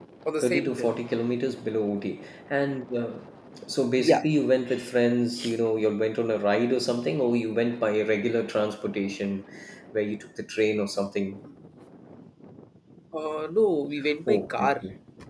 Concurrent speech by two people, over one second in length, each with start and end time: none

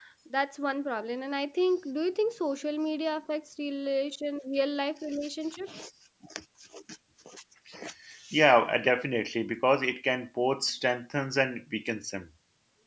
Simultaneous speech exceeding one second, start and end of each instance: none

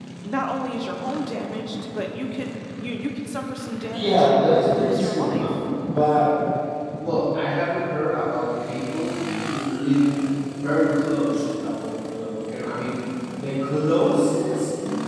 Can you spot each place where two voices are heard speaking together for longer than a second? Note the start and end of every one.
3.9-5.5

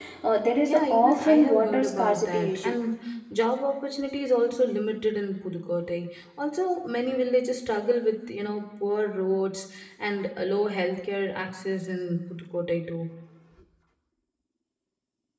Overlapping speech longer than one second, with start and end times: 0.7-2.8

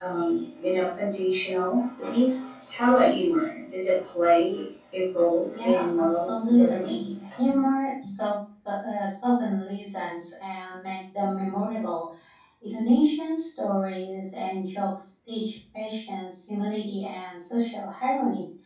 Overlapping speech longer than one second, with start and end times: 5.6-7.0

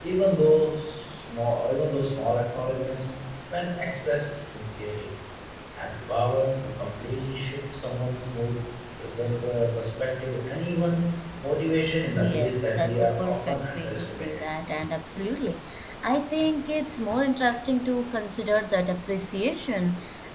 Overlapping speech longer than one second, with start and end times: 12.1-14.4

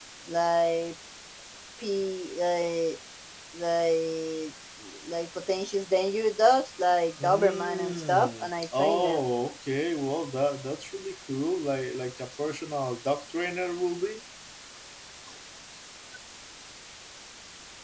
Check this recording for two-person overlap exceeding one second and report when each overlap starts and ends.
7.2-9.2

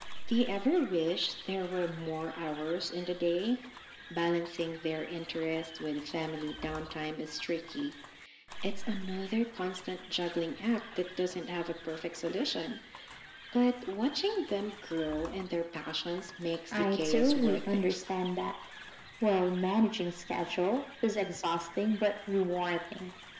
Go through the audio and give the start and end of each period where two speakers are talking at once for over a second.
16.7-18.0

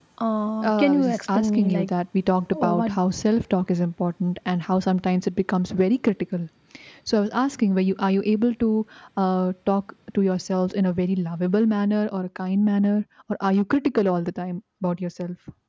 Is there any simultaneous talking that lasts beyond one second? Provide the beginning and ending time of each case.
0.6-1.9

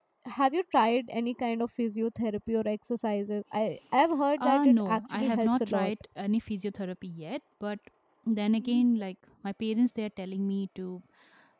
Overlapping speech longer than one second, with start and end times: 4.4-5.9

